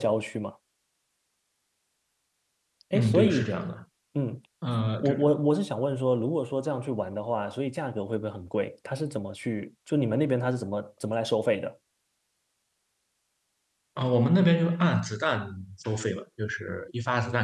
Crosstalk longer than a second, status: none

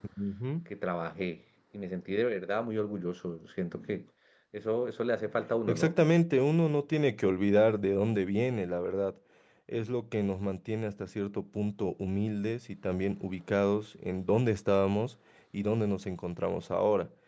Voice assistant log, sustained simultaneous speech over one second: none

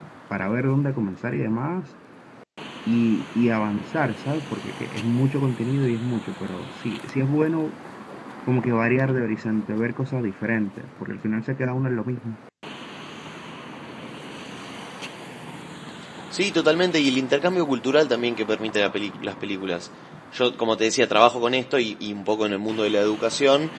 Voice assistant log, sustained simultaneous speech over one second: none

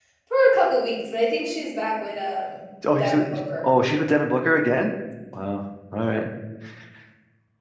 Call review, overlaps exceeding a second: none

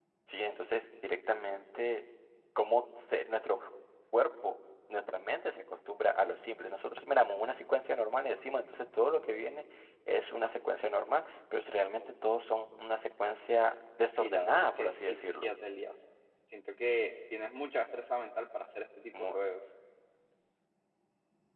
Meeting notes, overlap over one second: present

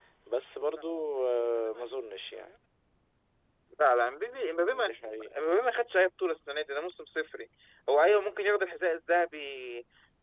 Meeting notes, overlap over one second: none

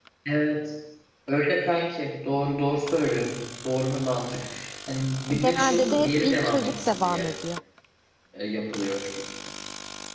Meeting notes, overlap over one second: present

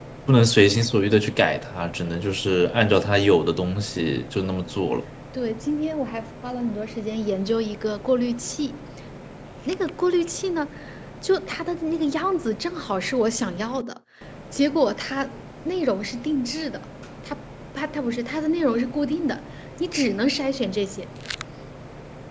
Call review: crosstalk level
none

